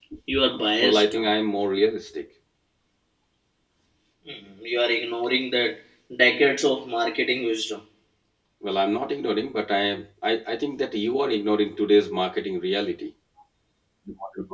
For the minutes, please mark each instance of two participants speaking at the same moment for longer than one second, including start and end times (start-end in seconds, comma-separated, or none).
none